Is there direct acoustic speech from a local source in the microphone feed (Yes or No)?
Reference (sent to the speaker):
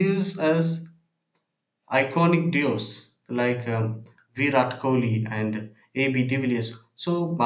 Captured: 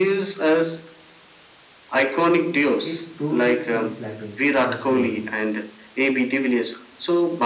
Yes